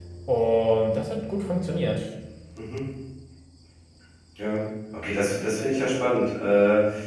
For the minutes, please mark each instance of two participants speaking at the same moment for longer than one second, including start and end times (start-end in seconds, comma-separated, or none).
none